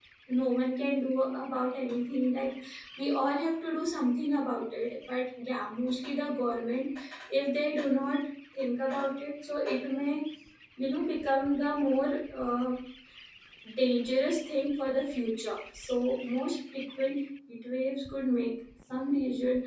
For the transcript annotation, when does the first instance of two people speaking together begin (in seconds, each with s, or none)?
none